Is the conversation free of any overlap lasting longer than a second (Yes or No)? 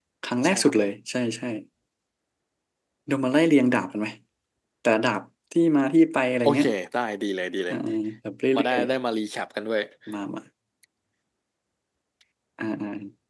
Yes